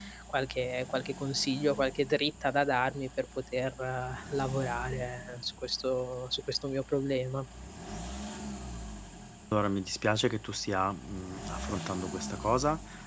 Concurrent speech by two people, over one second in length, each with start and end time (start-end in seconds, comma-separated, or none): none